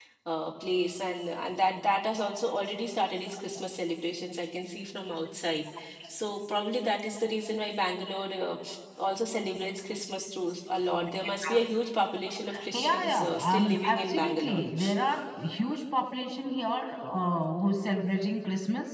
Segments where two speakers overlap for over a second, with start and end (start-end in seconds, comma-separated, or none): 12.7-14.6